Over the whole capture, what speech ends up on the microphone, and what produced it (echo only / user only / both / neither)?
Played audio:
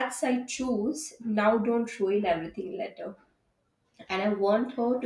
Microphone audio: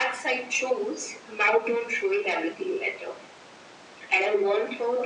echo only